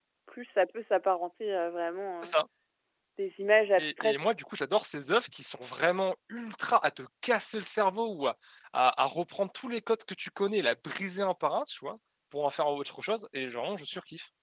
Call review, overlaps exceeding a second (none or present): none